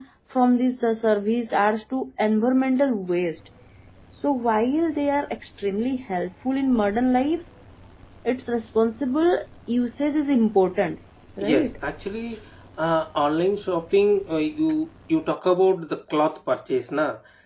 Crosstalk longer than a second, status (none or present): none